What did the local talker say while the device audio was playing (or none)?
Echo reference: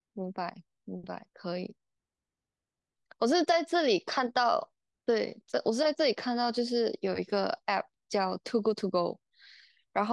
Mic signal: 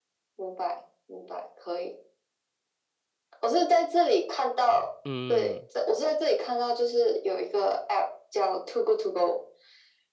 嗯。